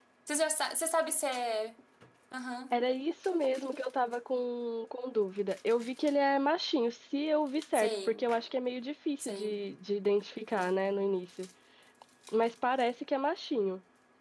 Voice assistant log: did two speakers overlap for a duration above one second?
No

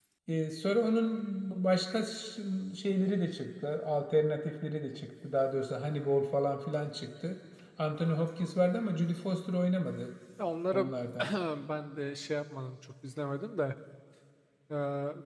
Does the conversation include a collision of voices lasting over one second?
No

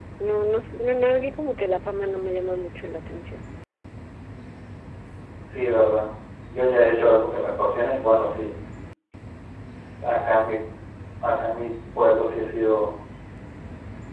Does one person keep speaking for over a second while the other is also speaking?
No

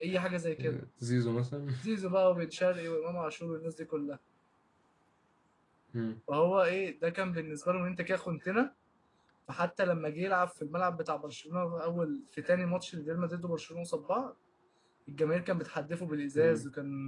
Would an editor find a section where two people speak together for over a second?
No

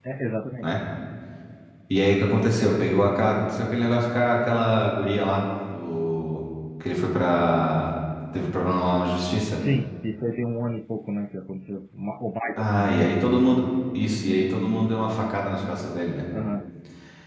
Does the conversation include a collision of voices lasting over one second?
No

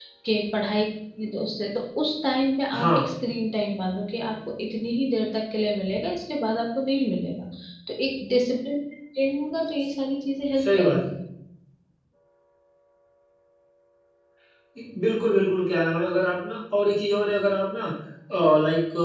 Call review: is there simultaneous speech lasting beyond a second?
No

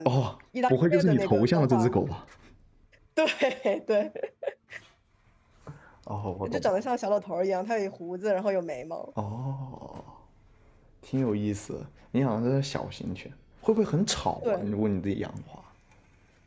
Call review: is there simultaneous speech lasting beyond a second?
Yes, from 0.7 s

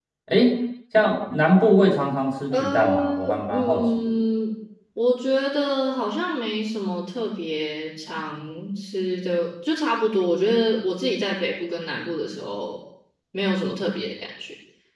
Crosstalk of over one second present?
Yes, from 2.5 s

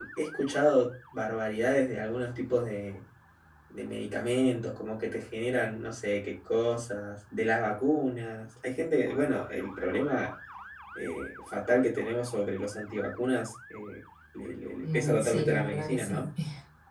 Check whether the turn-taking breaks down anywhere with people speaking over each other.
Yes, from 14.8 s

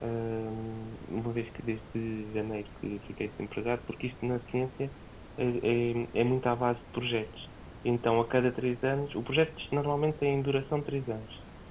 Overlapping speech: No

